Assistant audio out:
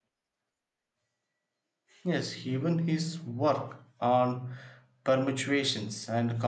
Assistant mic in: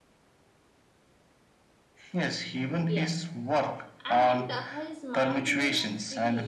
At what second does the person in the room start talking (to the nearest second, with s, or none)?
3 s